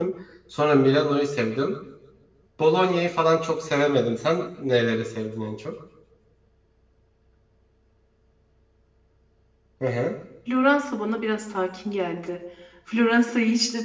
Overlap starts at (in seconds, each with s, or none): none